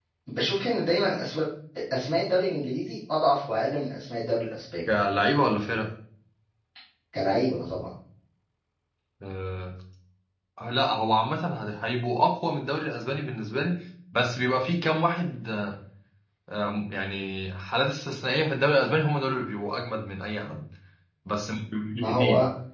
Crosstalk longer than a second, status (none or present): none